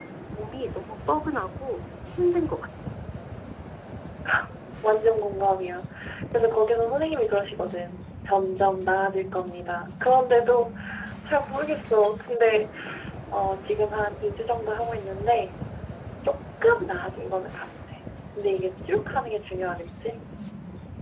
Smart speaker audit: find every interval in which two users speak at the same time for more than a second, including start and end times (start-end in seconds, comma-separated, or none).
none